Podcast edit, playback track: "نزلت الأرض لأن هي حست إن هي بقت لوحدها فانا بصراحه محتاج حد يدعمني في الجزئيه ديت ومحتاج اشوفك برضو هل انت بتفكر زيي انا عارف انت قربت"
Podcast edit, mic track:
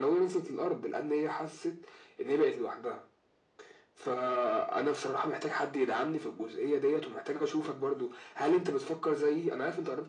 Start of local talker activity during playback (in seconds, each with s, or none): none